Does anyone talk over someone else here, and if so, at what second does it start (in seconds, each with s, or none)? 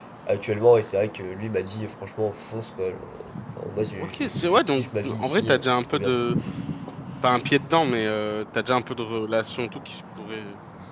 4.0 s